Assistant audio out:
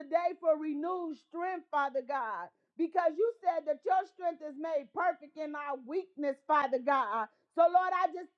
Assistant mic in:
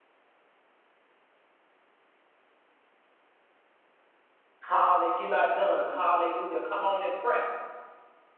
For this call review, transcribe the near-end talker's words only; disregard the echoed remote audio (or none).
Hallelujah. You're not done. Hallelujah. Come on and press.